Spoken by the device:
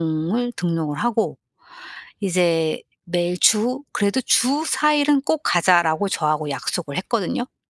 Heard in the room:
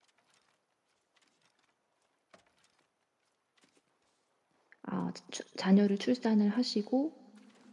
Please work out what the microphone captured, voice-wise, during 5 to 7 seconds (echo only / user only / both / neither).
user only